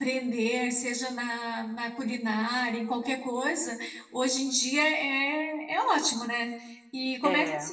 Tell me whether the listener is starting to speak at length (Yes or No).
No